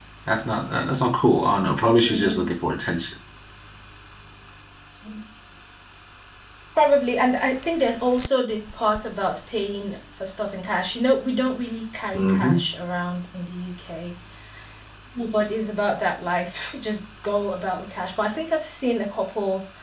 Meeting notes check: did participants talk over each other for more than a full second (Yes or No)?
No